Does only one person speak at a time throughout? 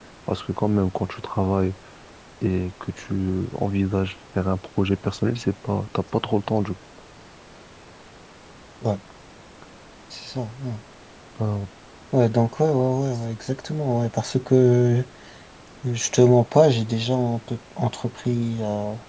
Yes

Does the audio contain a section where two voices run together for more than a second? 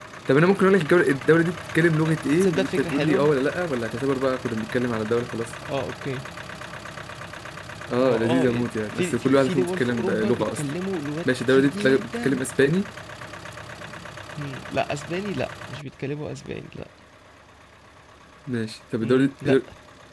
Yes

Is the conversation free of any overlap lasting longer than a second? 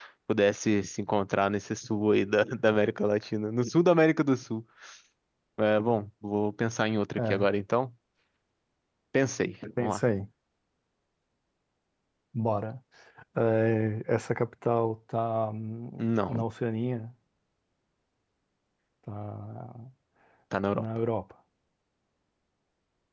Yes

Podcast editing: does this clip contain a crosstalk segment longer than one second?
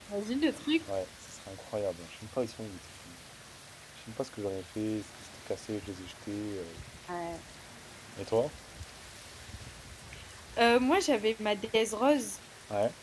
No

